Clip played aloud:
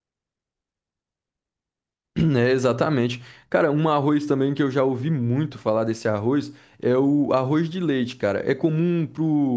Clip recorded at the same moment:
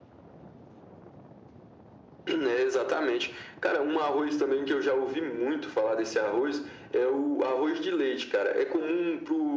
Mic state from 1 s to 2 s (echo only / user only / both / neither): neither